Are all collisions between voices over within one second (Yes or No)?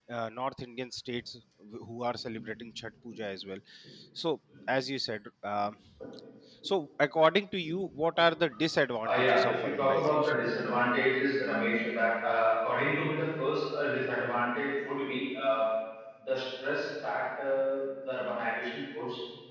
No